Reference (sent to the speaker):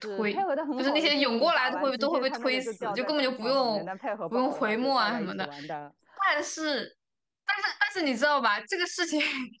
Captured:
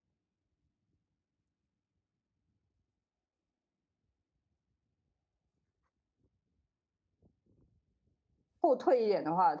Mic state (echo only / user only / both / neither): user only